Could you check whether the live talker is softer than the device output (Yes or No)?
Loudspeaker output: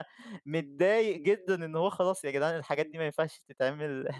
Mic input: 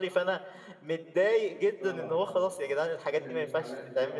Yes